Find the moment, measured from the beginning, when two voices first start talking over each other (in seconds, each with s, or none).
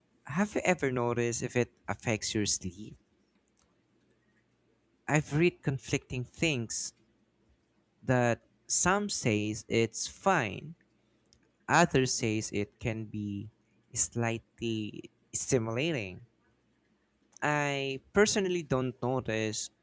none